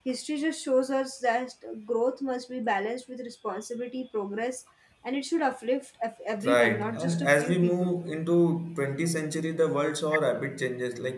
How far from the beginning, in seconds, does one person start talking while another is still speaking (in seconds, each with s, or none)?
6.4 s